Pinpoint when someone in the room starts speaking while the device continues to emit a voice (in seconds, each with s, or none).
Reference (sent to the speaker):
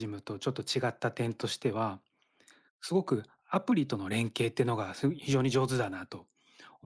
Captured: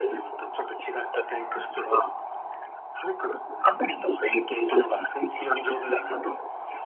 none